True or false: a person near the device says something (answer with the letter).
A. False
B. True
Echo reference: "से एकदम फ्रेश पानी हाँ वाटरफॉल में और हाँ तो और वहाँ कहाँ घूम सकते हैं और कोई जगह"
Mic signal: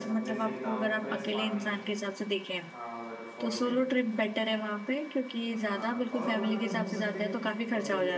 B